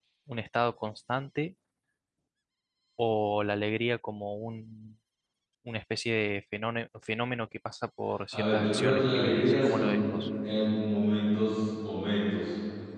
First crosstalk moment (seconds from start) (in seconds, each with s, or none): 8.3 s